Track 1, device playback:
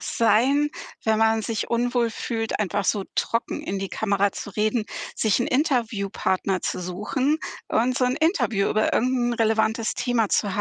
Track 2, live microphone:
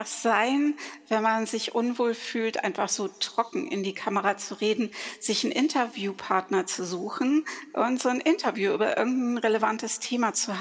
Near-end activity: none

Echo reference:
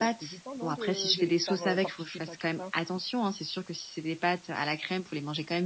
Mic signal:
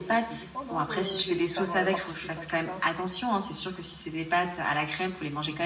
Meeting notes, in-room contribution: none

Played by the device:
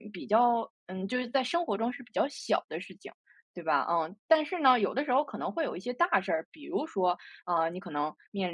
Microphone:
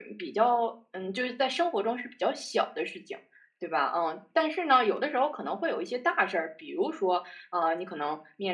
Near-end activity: none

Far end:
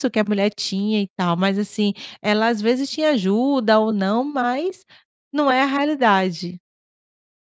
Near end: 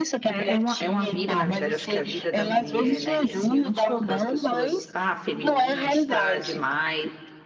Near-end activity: present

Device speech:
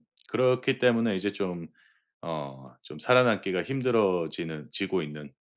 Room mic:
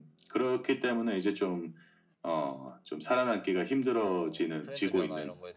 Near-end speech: present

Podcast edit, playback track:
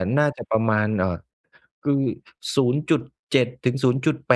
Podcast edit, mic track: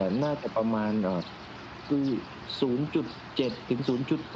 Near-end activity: none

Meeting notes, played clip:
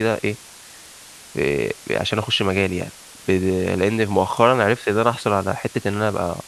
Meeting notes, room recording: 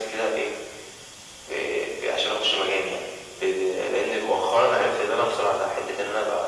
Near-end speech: none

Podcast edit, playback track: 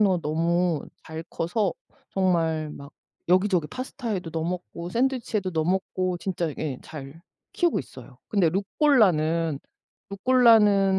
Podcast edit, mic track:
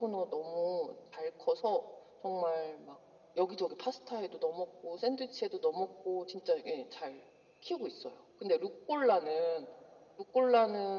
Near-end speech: none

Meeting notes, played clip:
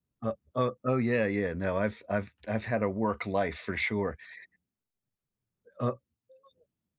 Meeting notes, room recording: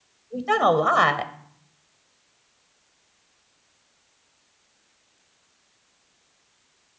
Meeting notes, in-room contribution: present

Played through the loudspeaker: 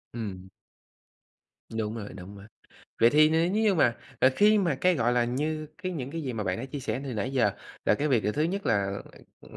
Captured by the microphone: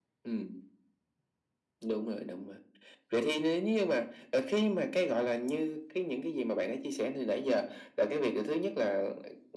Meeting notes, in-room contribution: none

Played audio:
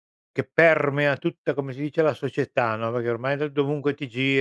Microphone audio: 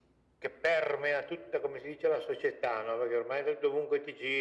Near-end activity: none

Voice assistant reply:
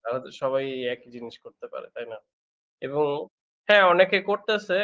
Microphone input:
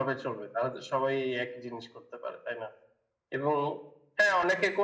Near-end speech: none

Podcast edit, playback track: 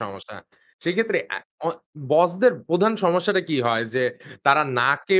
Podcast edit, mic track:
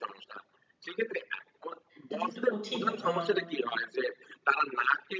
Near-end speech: present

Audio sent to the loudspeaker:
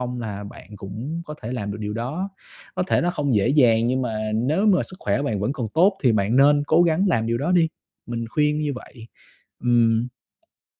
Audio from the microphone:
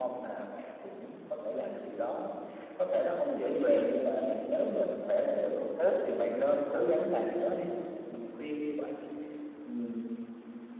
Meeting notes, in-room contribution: none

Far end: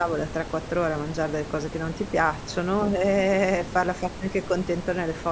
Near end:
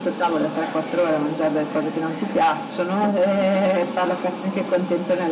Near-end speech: present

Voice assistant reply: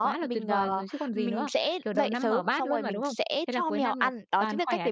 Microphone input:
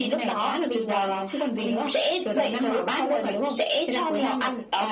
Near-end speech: none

